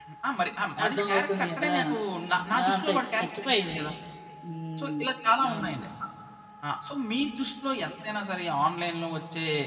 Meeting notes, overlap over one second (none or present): present